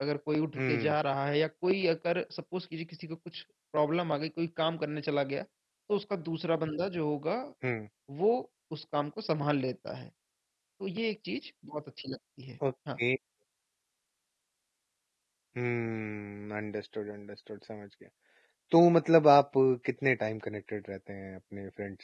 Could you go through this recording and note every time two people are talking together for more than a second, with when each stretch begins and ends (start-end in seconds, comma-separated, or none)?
none